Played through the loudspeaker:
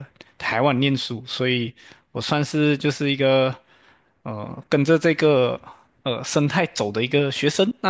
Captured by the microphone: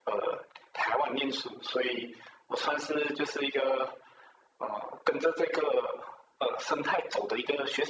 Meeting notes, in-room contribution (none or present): none